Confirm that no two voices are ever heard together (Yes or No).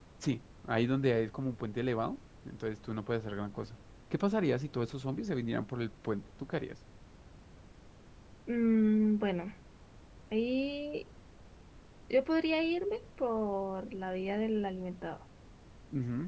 Yes